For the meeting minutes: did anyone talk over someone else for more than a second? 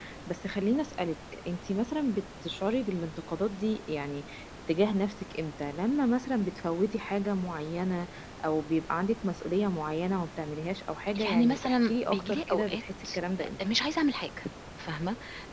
Yes, from 11.3 s

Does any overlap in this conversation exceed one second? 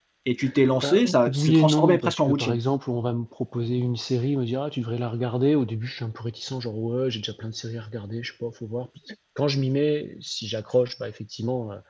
Yes, from 0.8 s

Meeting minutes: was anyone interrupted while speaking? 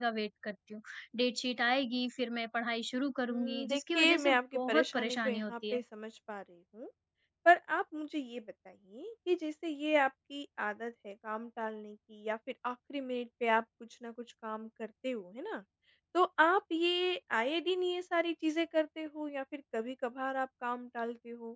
Yes, from 3.3 s

